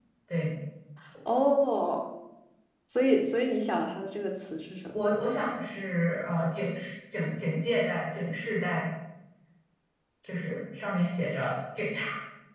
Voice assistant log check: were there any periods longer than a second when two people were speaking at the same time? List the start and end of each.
none

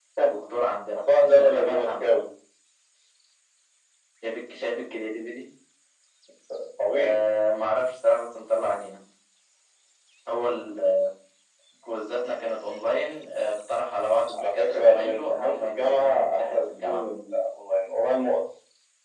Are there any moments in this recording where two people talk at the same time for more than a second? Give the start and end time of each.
0.9-2.1, 14.4-17.0

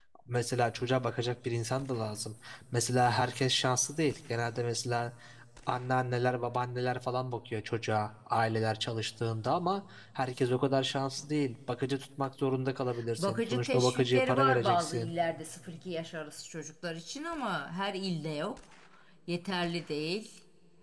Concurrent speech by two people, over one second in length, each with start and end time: 13.2-15.1

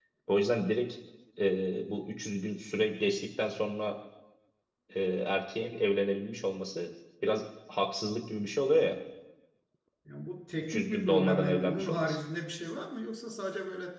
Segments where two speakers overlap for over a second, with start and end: 10.7-12.2

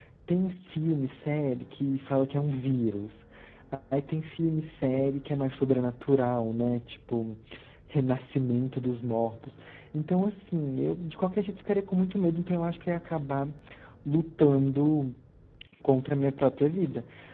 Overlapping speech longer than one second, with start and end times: none

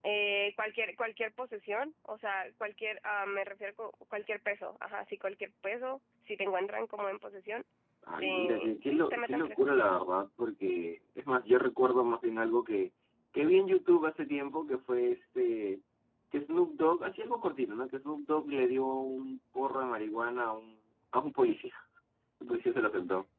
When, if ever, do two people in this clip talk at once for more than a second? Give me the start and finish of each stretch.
8.2-9.6

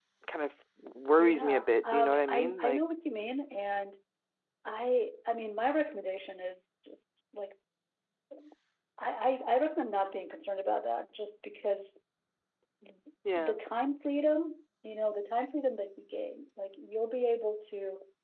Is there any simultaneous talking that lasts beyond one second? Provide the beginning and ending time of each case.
1.2-2.8

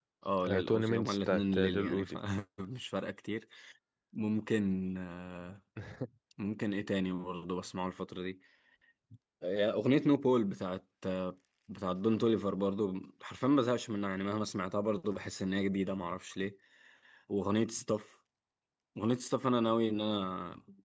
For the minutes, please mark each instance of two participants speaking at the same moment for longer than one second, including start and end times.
0.5-2.2

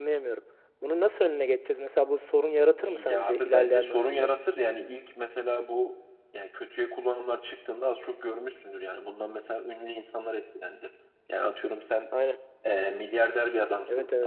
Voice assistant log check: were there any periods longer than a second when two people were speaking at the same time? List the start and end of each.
2.8-4.3

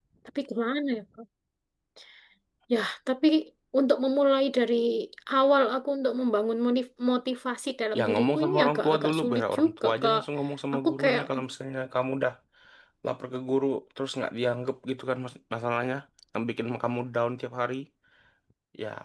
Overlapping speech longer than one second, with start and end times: 8.0-10.2

